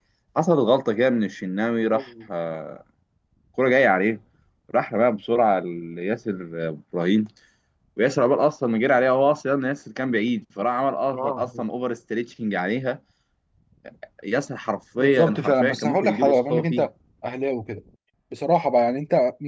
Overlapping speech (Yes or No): Yes